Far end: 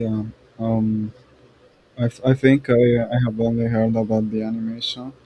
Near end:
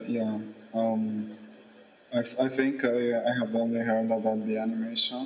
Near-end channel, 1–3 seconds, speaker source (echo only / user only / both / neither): echo only